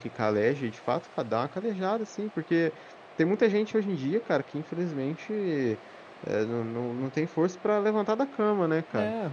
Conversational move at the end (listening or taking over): listening